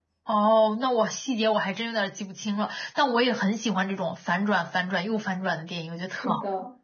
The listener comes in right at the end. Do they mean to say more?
Yes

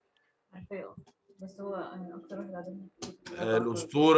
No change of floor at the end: No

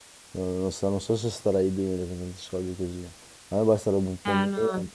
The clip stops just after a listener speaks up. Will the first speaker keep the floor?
No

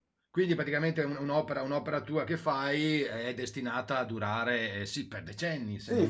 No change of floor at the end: No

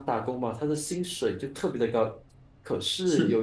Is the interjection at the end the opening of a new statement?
No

